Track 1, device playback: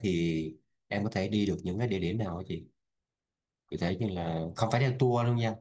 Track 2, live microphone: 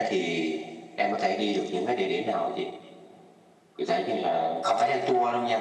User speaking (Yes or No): No